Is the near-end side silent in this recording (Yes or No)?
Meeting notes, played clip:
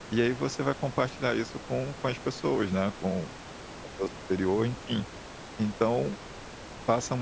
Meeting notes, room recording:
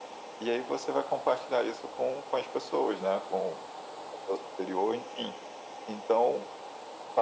Yes